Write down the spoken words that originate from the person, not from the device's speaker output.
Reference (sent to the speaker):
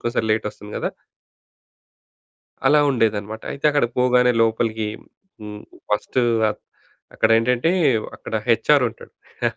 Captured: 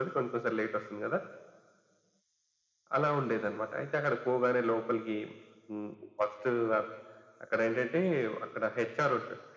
none

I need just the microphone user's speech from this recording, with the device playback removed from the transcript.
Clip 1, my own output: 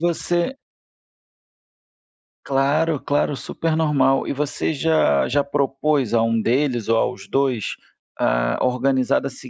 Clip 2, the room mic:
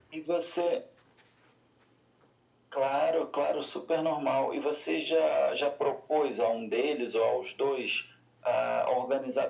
none

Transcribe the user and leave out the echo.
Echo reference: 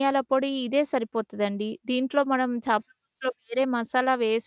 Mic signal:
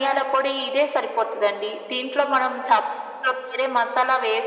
none

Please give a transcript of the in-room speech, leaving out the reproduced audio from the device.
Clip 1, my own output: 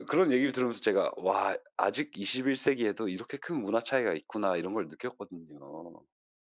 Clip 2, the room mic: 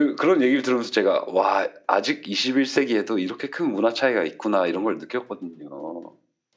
none

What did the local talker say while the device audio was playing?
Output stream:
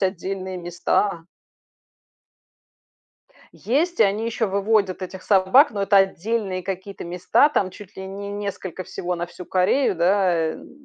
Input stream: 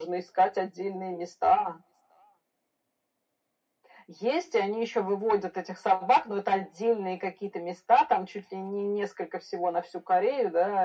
none

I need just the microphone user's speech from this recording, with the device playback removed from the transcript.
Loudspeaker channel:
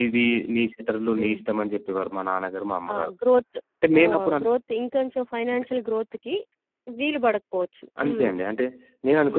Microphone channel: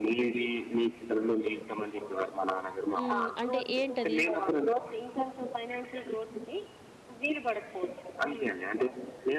హ్మ్ అంటే ఏంటది?

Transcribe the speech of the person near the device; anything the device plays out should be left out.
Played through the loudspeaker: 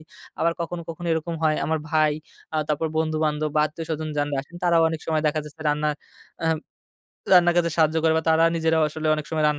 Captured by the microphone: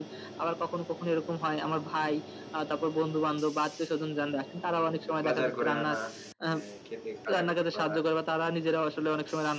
বাজার করে আনা। হ্যাঁ, কেটে কাটাকাটি করা।

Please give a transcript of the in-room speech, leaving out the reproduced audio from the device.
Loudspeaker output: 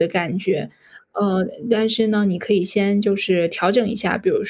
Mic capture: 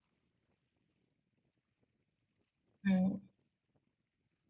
嗯。

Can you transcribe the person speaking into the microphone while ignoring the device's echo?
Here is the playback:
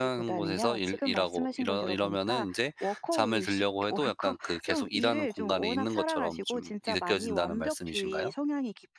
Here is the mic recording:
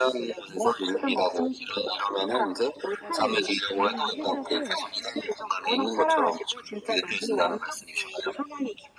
맞아요. 이 해답을

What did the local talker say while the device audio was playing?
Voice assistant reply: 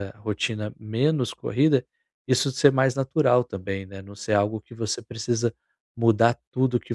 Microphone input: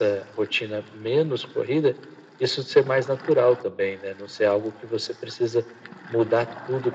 none

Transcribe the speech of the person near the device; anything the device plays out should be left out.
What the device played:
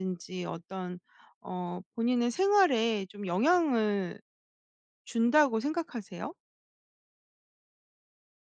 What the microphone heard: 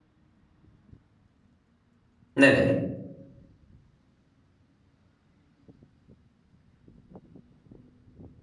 네네.

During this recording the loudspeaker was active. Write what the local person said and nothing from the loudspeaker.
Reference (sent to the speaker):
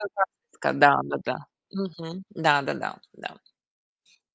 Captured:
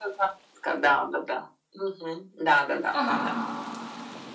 Ага.

